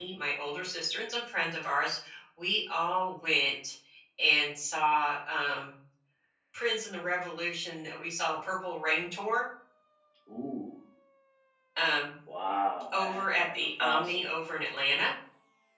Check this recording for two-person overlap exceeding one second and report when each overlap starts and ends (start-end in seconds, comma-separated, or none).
12.9-14.2